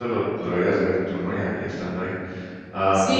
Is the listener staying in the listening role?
No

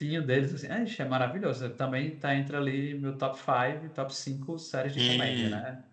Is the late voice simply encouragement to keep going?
No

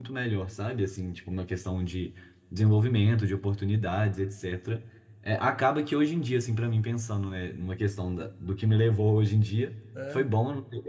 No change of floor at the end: Yes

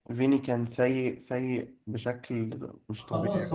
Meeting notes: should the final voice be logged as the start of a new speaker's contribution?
Yes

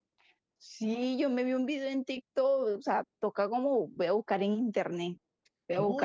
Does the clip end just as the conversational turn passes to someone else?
Yes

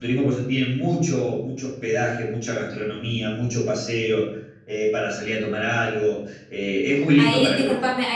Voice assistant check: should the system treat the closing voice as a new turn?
Yes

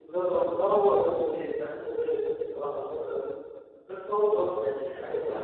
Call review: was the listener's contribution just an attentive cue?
No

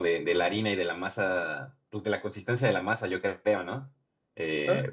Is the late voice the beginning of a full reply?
No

